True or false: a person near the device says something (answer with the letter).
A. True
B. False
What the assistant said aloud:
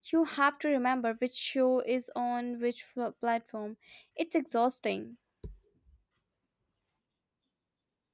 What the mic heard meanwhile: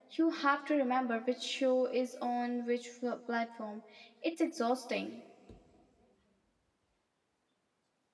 B